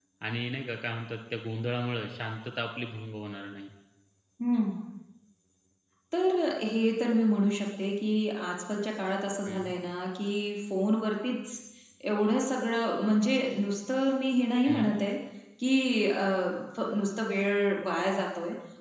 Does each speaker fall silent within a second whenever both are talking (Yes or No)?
Yes